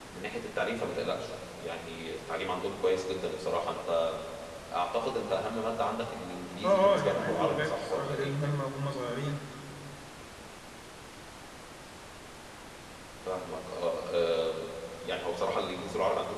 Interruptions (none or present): present